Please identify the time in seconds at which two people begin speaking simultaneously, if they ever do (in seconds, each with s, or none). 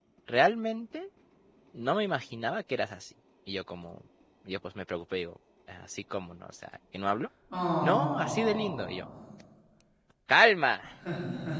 7.8 s